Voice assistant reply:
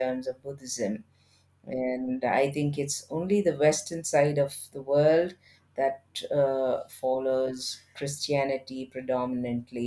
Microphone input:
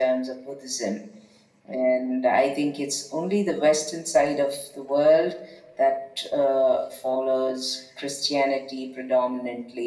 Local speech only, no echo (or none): none